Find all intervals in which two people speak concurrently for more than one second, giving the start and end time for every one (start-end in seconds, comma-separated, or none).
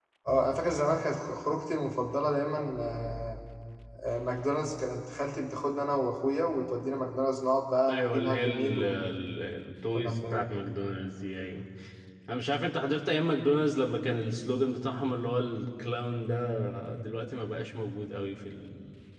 7.9-9.1